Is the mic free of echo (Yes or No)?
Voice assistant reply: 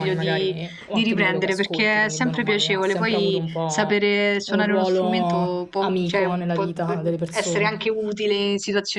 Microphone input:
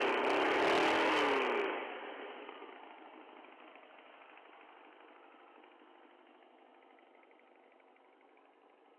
Yes